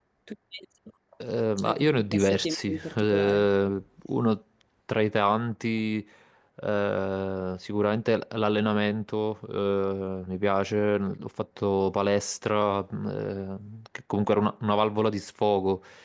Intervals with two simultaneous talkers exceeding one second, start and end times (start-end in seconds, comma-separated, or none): 1.6-3.5